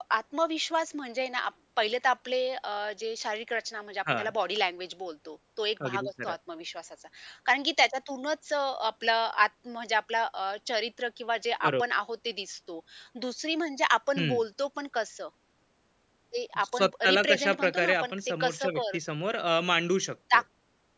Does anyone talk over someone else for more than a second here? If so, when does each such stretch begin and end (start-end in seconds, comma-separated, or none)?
16.6-19.0